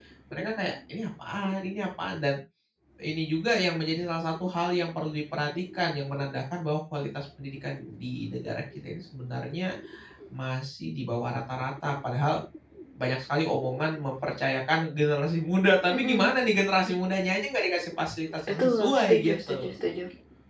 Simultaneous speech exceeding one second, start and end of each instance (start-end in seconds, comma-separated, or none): 18.5-19.7